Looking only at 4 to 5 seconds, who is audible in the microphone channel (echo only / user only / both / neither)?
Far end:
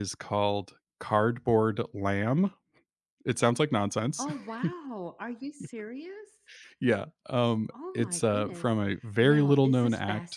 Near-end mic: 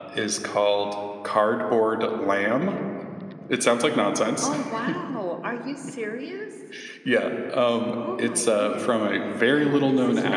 echo only